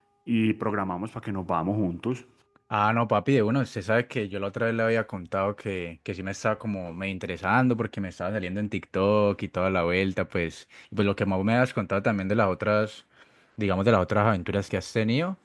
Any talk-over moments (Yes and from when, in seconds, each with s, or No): No